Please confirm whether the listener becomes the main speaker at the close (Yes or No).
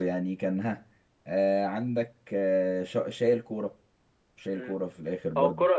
Yes